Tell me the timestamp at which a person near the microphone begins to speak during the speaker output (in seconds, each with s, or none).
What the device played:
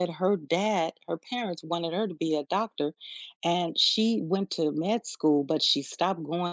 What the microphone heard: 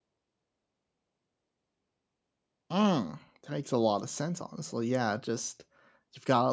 2.7 s